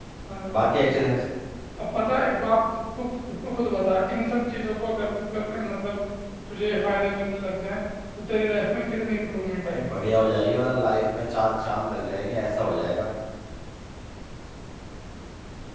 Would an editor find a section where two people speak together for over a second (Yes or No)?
No